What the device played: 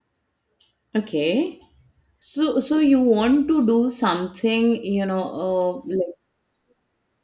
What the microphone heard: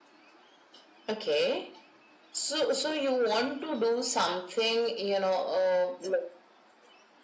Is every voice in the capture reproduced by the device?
Yes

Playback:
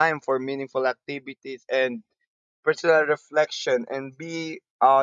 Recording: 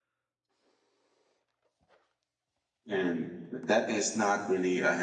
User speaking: Yes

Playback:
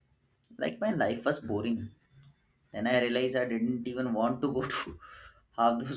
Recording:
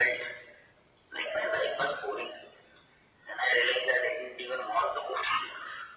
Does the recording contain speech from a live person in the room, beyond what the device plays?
No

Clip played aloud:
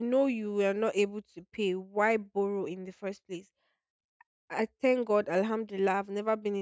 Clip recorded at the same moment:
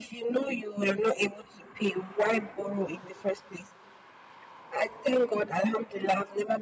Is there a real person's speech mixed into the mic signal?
No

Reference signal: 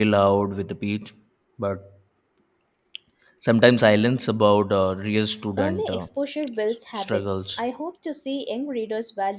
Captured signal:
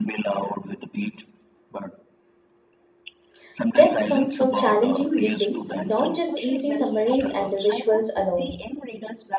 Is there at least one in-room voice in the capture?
Yes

